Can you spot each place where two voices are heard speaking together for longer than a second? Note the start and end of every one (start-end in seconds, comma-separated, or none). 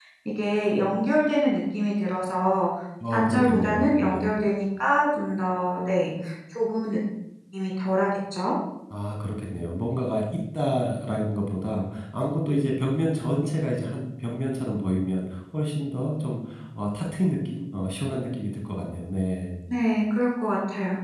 3.1-4.4